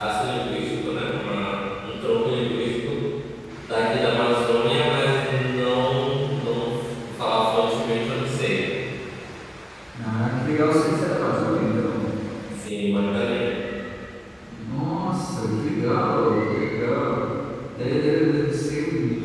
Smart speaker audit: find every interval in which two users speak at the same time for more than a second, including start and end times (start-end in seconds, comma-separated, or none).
none